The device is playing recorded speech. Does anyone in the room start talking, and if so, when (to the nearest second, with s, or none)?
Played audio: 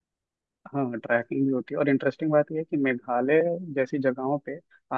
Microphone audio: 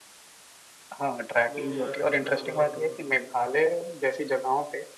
1 s